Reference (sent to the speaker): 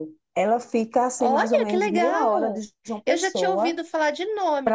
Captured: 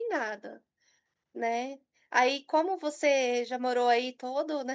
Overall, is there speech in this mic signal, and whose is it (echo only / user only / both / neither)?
user only